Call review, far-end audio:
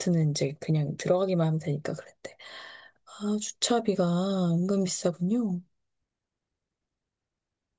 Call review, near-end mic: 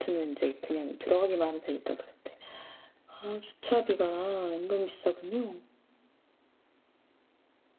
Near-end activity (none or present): none